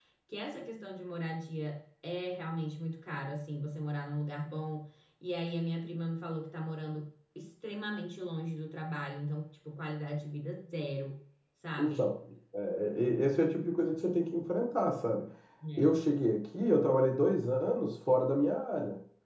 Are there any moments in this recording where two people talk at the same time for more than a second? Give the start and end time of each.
none

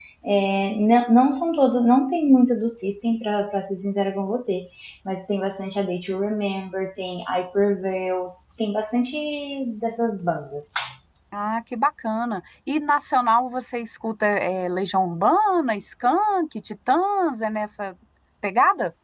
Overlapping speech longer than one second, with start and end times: none

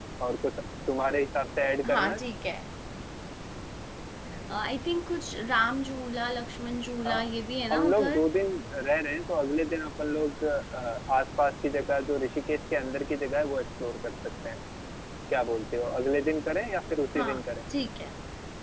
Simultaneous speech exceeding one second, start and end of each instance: none

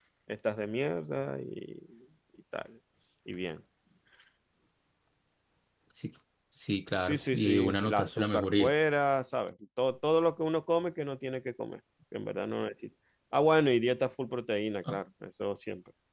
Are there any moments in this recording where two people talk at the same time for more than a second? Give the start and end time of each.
7.0-8.7

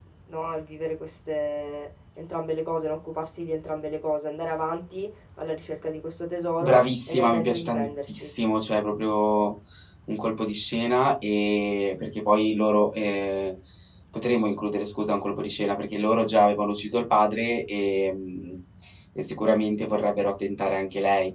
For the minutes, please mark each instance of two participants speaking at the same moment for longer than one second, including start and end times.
6.6-8.3

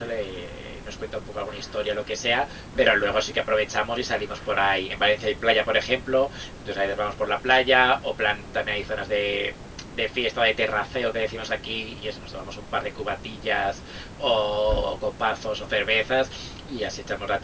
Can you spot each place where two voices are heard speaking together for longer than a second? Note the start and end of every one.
none

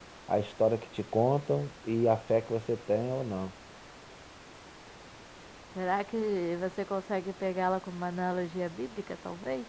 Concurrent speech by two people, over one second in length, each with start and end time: none

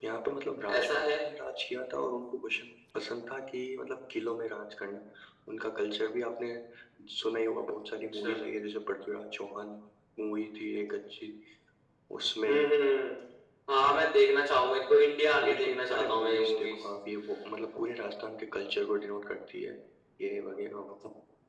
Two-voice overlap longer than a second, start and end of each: 15.5-16.7

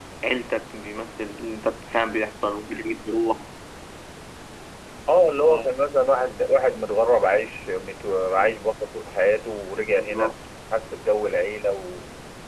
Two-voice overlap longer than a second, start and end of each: none

